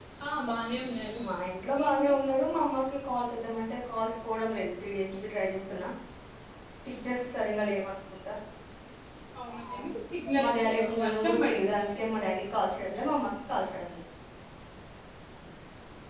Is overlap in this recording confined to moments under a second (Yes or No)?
No